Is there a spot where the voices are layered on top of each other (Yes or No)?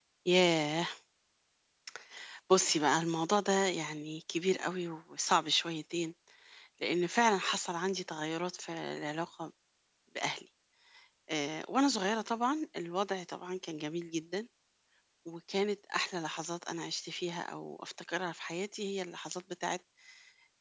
No